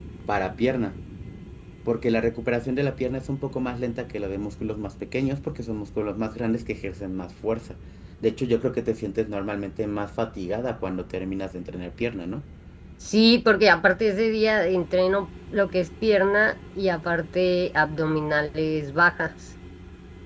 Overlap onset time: none

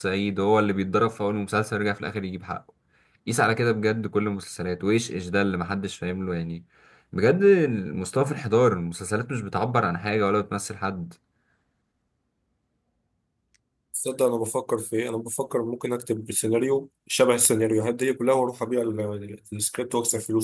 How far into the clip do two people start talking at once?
none

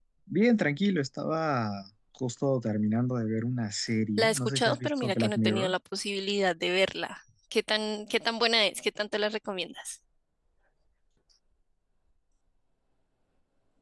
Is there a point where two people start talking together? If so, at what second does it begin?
4.2 s

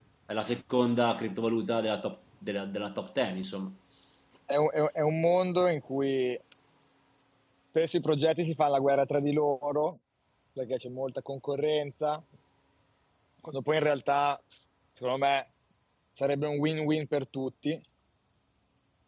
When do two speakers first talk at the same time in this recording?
none

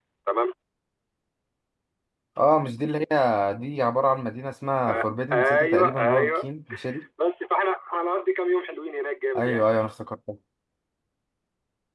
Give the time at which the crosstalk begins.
4.9 s

